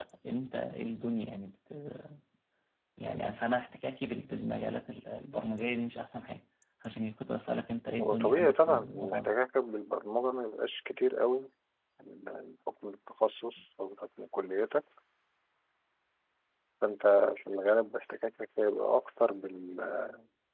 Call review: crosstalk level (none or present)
present